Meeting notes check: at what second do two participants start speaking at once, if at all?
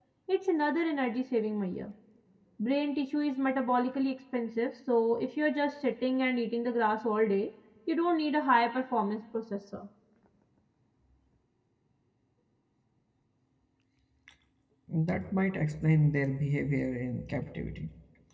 none

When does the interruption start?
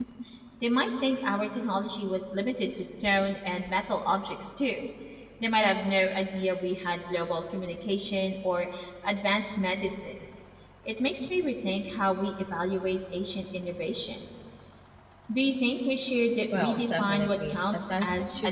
16.5 s

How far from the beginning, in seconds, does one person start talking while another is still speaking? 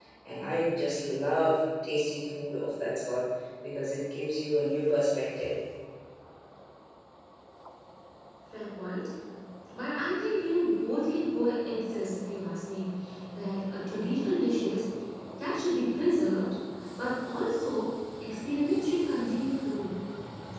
none

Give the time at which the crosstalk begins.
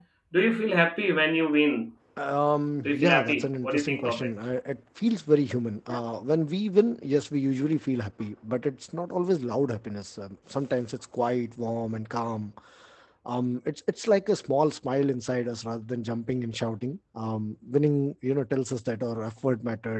2.9 s

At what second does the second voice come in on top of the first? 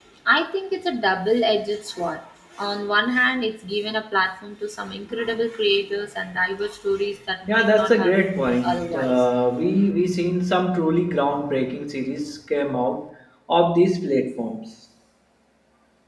7.5 s

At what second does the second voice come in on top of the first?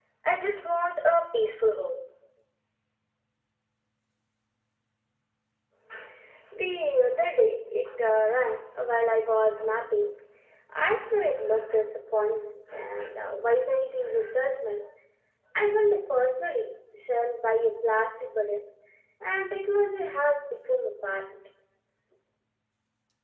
none

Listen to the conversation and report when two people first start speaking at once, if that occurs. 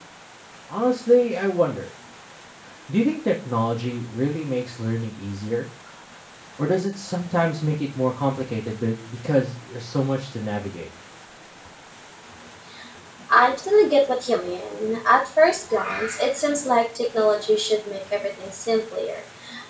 none

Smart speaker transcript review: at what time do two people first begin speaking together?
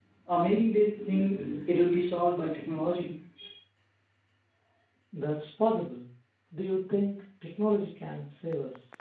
none

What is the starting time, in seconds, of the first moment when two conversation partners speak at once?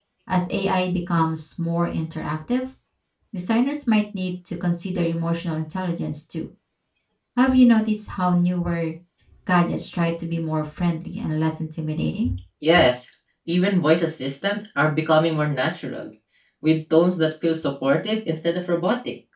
none

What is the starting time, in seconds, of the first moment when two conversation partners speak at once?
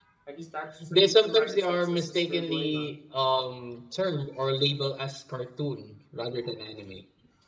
0.9 s

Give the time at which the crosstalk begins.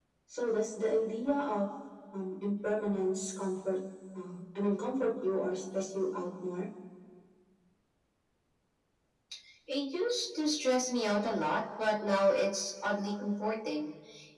none

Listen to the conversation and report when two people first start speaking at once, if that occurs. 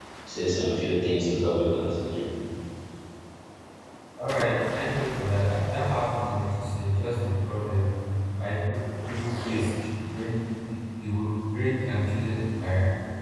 none

